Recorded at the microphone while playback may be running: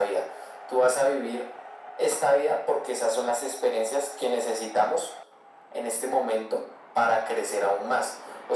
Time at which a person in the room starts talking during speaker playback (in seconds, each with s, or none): none